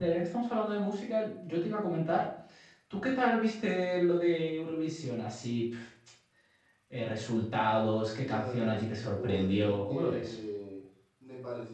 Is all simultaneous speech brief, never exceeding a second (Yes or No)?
No